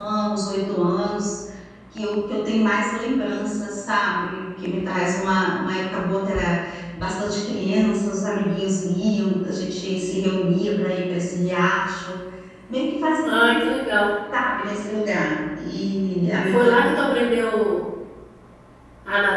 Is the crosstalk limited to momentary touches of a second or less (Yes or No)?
Yes